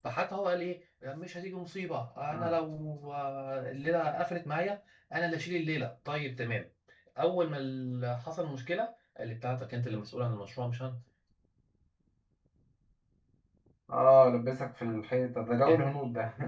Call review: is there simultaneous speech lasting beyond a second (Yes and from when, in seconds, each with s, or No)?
No